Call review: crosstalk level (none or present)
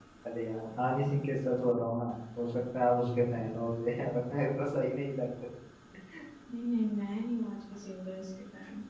none